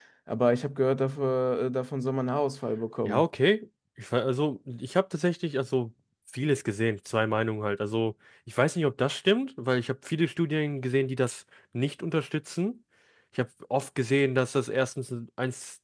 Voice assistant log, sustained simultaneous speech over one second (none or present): none